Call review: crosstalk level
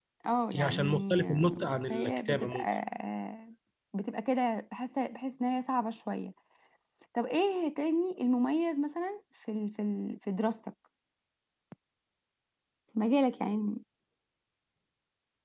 present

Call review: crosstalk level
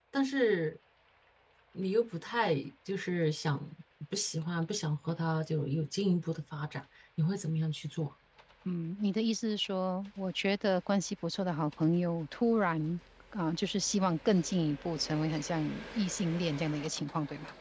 none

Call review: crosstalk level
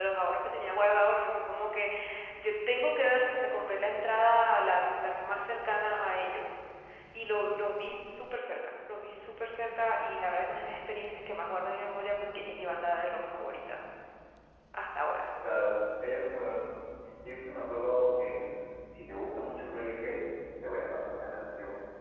none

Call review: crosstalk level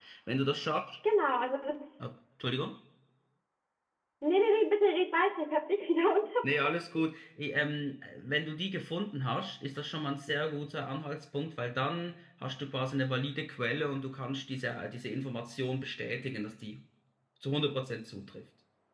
none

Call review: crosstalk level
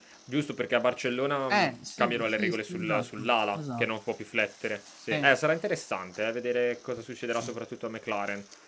present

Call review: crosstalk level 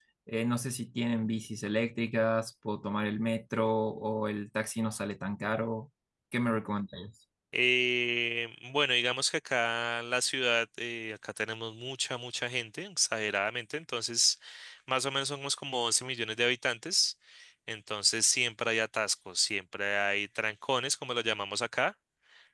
none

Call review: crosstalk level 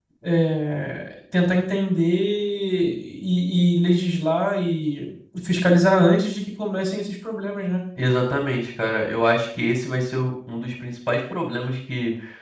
none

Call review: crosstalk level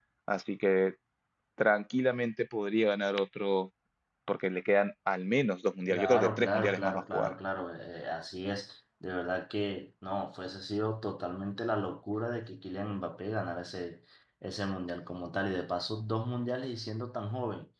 present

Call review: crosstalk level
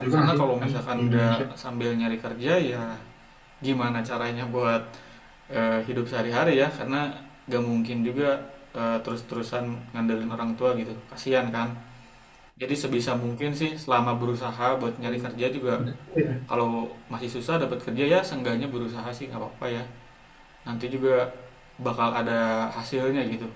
present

